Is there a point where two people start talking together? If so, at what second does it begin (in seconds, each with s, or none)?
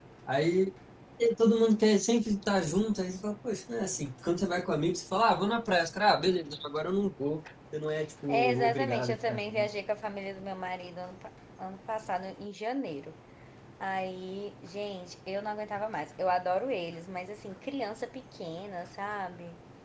8.3 s